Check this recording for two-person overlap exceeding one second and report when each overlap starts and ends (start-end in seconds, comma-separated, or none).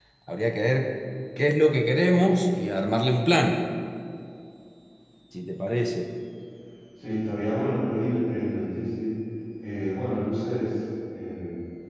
none